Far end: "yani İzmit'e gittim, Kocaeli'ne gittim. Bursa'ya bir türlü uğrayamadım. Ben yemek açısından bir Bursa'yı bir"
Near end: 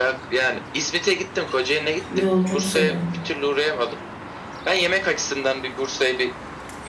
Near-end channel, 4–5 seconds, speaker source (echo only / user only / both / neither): echo only